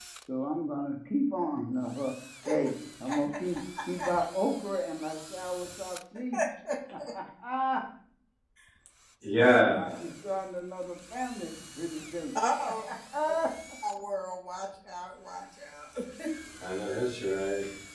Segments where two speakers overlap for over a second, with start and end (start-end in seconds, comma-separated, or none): none